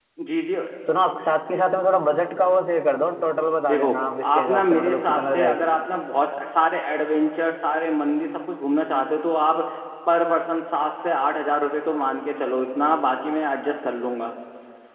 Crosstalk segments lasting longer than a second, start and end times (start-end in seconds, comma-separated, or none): 3.7-5.7